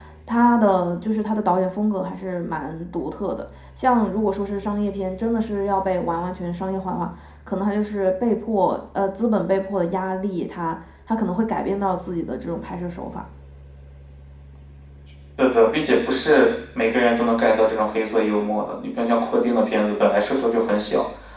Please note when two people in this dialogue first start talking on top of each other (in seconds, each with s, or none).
none